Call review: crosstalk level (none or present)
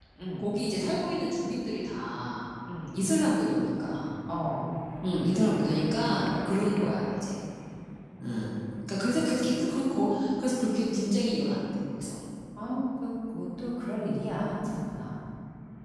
none